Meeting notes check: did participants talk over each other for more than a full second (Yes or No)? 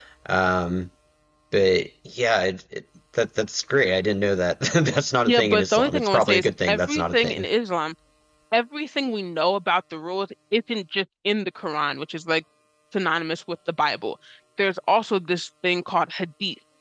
Yes